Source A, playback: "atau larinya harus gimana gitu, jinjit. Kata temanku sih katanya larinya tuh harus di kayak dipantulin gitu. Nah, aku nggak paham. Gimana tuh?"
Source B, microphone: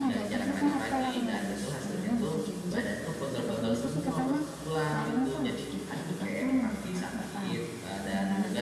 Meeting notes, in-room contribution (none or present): present